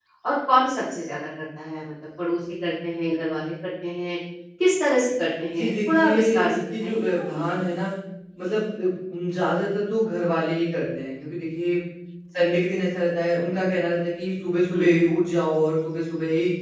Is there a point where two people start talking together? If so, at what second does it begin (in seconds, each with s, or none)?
5.5 s